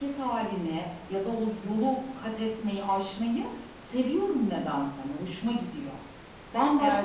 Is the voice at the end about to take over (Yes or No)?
No